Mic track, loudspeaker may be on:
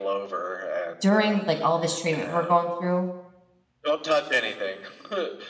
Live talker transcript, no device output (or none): during like all this treatment we're going through,